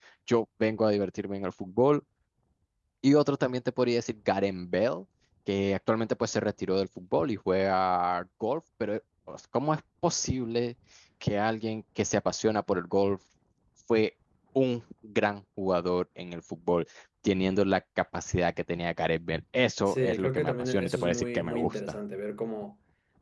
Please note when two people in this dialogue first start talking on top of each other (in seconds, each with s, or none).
19.9 s